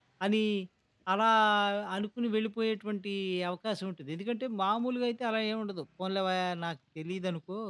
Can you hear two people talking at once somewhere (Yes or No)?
No